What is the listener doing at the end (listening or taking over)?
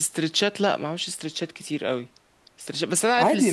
listening